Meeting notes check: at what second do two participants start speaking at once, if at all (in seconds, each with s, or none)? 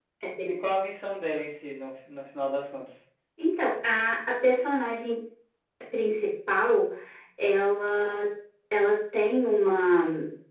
none